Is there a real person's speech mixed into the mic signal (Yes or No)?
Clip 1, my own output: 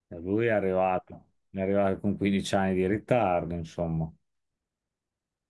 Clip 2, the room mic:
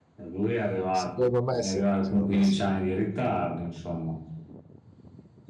Yes